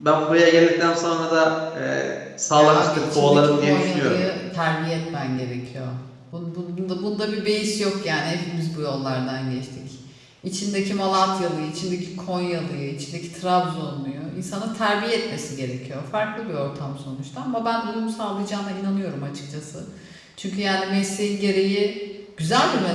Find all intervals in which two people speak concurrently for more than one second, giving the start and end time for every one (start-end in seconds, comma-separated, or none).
2.5-4.2